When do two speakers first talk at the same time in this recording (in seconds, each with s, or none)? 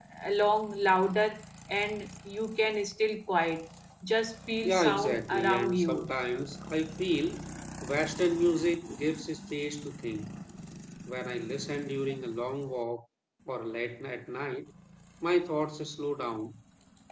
4.6 s